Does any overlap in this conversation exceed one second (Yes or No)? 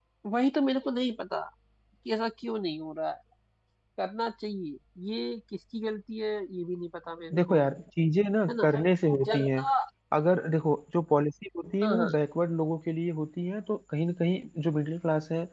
No